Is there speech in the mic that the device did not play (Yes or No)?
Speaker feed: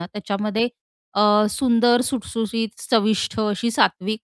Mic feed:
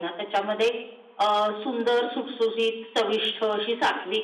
No